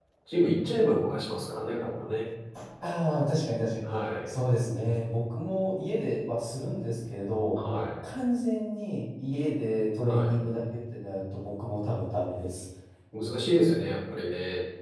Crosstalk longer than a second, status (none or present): none